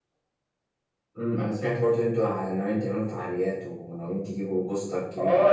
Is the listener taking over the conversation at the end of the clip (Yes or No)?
Yes